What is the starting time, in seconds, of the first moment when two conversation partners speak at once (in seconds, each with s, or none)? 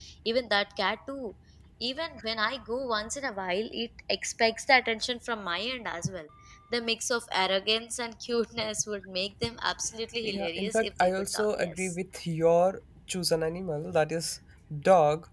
10.2 s